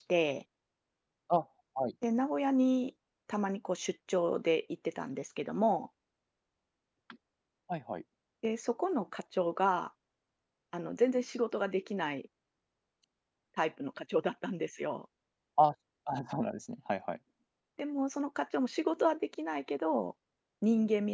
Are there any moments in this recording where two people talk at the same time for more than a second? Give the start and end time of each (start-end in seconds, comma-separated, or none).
none